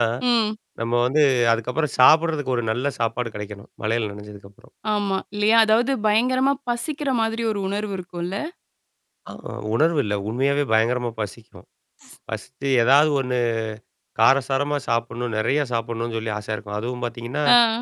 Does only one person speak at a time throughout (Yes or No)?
Yes